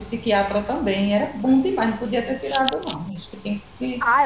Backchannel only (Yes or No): No